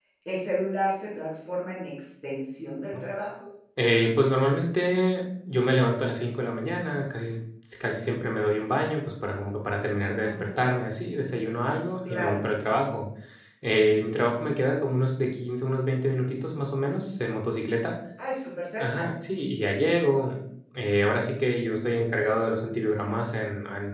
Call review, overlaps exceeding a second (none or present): none